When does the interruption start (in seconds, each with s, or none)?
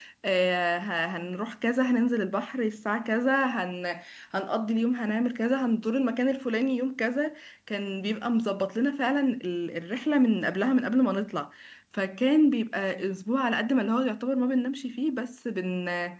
none